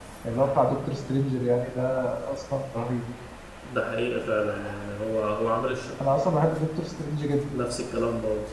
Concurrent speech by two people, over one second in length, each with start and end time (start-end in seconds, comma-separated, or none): none